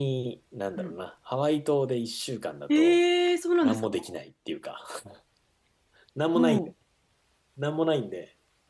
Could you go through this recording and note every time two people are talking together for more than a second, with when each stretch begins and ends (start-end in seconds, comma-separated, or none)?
none